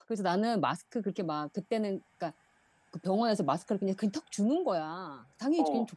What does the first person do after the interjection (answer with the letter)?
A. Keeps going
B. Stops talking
A